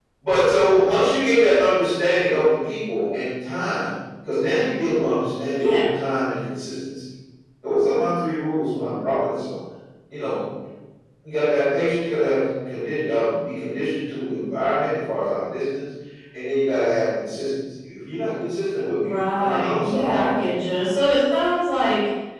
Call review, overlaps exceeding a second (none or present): present